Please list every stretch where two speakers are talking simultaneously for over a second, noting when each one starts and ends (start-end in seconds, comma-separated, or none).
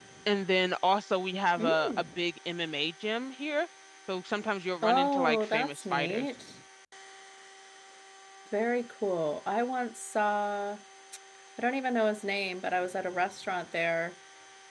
4.8-6.2